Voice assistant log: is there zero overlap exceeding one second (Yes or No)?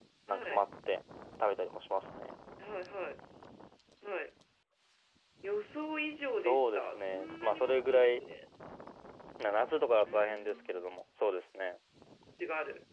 No